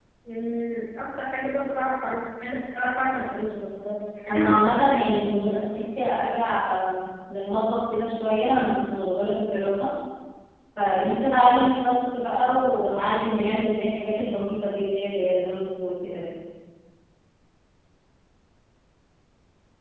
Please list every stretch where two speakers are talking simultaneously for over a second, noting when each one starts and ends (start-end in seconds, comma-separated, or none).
4.3-5.6